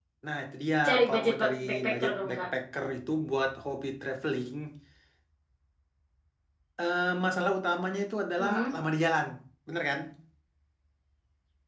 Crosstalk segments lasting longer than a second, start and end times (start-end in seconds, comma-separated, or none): 0.9-2.4